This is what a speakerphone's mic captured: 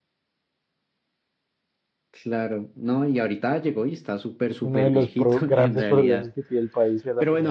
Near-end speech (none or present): present